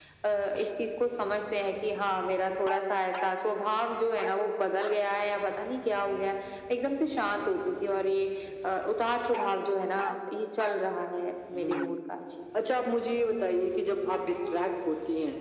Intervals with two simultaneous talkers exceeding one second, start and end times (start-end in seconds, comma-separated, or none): none